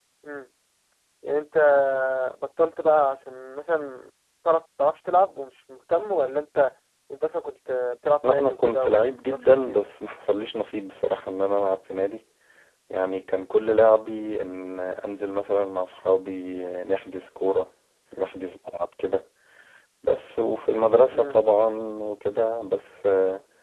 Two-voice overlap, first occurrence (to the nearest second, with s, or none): 8 s